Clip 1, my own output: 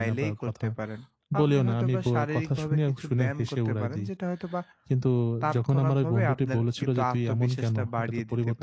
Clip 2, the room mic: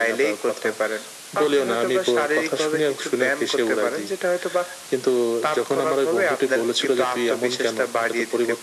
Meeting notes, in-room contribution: none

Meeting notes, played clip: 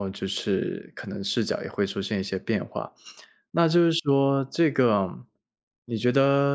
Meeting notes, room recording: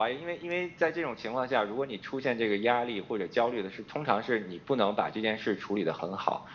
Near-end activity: present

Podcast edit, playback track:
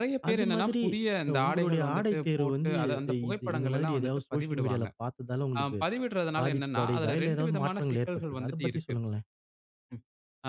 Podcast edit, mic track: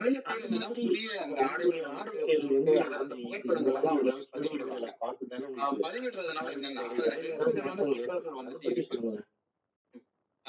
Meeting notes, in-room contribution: none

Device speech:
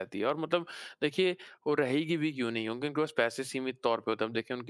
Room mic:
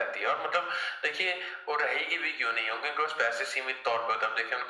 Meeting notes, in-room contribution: none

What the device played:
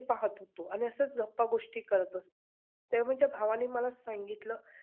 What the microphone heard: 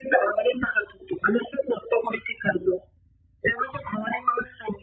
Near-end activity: none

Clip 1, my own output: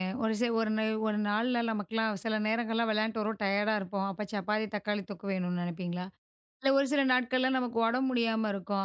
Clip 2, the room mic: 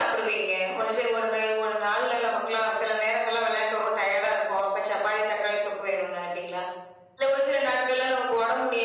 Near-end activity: none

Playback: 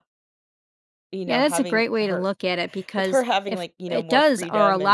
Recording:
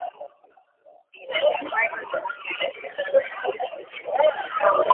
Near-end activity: none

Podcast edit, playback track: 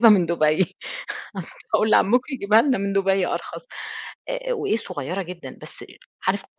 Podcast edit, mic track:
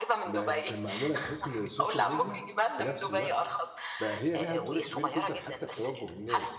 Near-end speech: present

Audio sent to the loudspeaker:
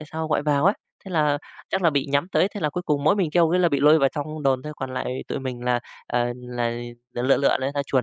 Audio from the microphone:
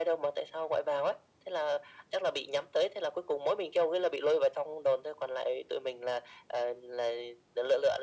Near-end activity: none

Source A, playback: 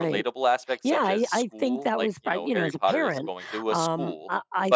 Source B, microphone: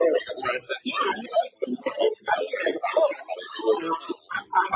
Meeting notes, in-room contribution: none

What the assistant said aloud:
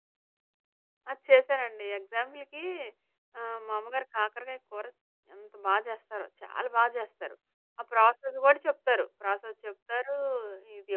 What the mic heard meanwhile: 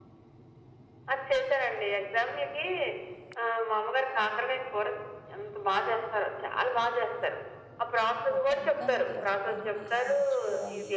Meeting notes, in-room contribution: present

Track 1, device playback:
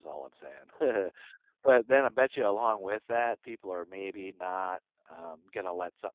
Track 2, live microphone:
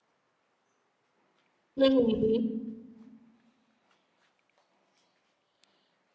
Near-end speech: present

